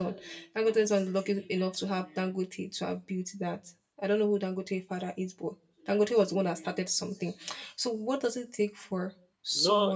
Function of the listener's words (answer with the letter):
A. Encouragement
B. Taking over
B